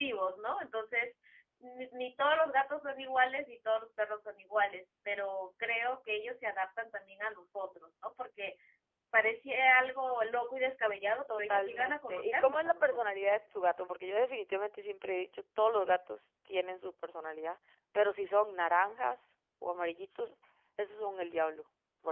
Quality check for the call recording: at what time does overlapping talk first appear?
11.3 s

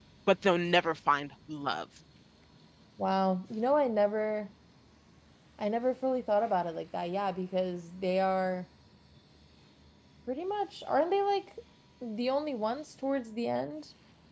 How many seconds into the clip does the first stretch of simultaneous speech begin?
none

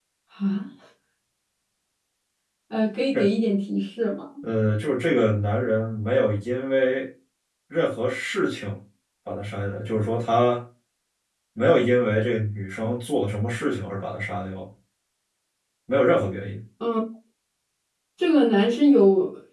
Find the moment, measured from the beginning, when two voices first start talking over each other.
none

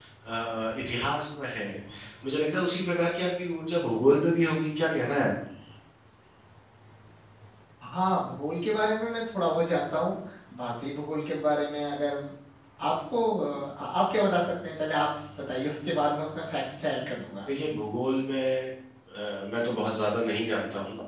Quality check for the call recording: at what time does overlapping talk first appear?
none

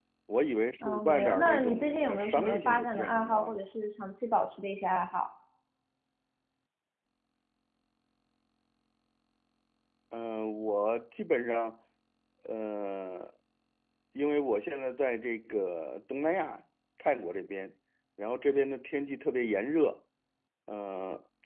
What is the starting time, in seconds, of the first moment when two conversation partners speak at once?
0.8 s

